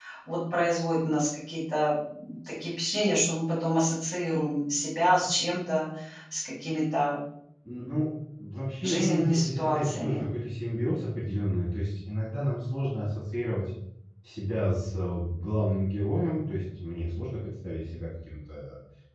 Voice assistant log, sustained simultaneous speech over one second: present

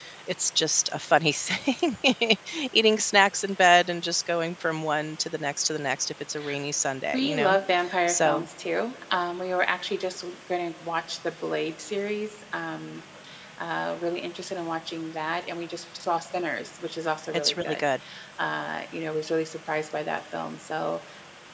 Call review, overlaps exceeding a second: none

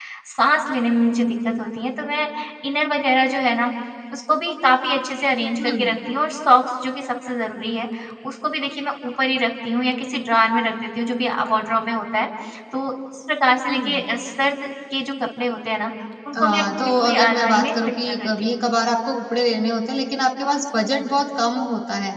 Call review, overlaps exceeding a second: present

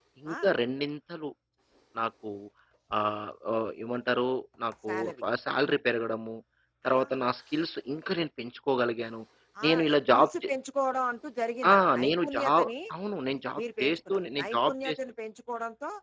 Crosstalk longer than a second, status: present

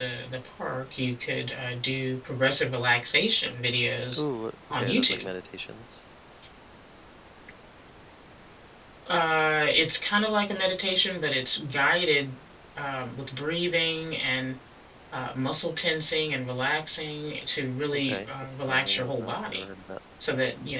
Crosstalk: present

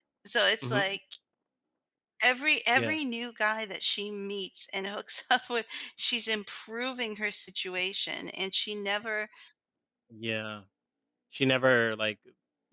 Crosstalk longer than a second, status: none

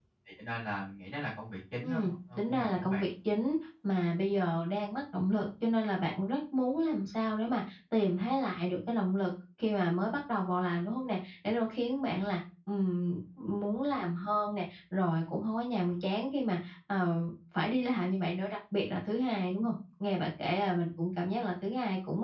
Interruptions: present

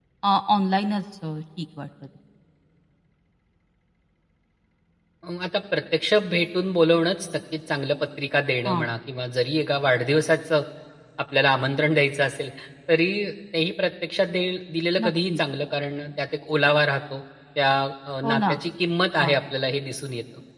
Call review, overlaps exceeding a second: none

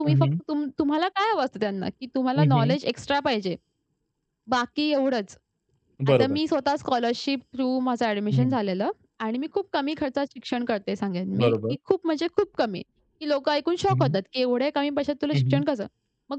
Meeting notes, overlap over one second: none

